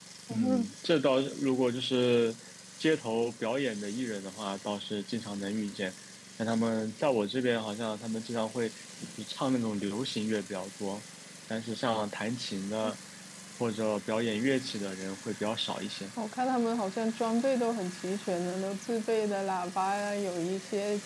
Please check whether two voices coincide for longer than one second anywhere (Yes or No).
No